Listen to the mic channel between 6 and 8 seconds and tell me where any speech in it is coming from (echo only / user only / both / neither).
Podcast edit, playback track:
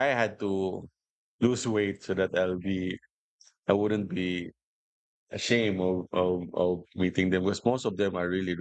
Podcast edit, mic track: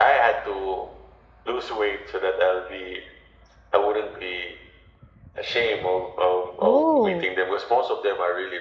both